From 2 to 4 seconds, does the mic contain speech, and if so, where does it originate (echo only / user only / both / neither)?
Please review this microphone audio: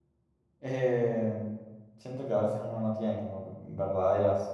user only